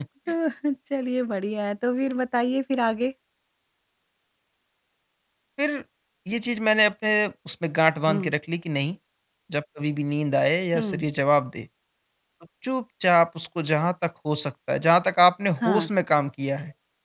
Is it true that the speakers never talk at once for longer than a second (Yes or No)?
Yes